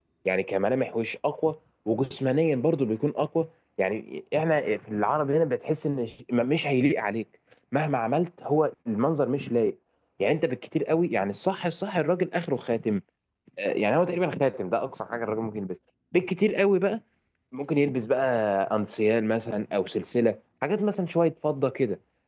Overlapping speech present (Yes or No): No